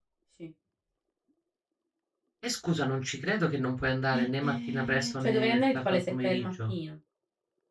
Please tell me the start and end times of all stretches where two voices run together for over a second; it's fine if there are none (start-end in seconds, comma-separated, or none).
4.1-6.7